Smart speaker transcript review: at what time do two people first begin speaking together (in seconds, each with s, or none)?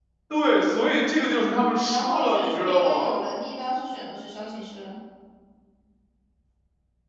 1.8 s